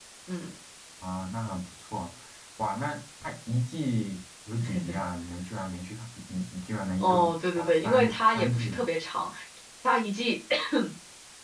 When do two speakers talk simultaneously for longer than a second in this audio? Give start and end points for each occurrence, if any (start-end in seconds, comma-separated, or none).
7.6-8.8